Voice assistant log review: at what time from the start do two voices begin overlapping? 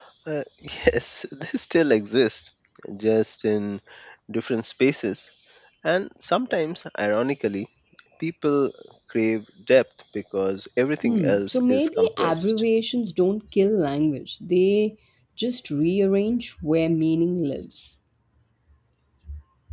11.0 s

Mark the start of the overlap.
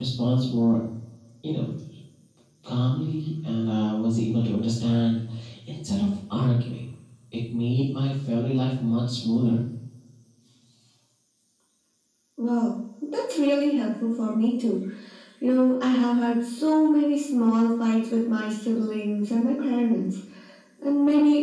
none

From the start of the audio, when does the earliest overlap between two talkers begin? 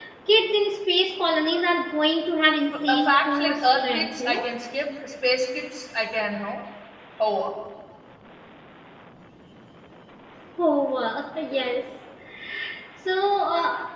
2.7 s

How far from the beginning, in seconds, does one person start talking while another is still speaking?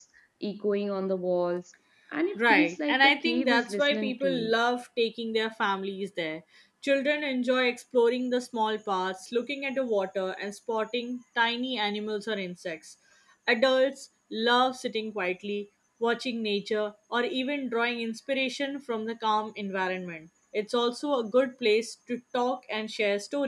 2.4 s

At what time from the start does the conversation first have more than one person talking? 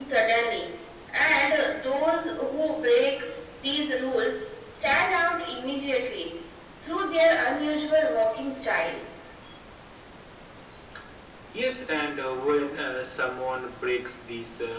none

